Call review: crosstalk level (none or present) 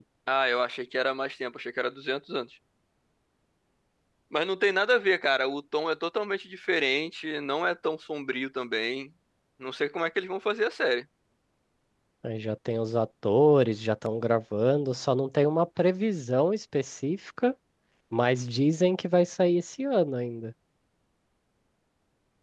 none